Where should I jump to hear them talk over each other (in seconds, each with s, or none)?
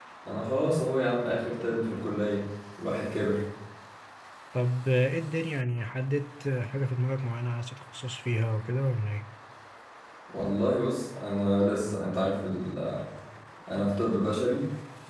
none